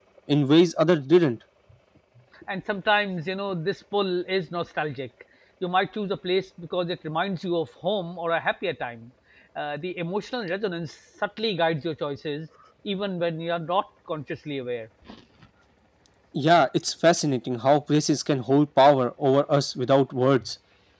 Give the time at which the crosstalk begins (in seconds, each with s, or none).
none